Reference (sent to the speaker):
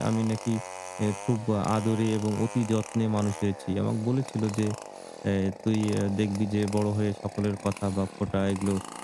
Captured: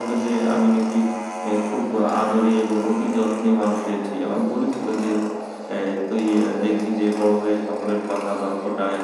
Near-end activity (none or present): none